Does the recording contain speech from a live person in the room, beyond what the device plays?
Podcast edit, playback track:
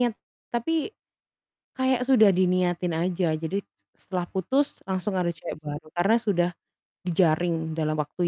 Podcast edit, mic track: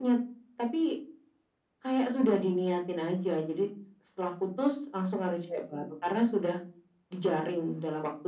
No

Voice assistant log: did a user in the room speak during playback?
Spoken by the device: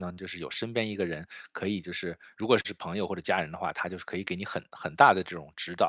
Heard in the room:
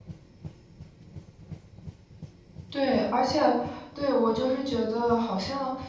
Yes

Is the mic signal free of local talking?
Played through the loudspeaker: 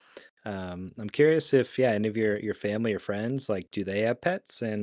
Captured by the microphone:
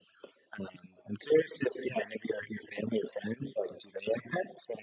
Yes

